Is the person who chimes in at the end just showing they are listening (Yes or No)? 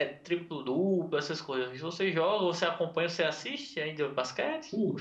No